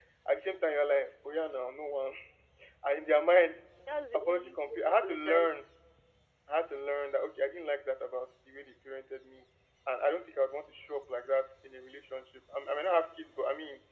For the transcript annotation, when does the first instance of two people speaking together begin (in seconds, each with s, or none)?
4.1 s